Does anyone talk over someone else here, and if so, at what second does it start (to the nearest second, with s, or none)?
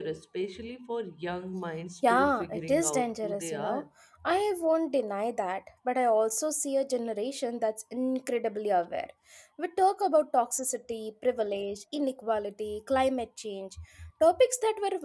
2 s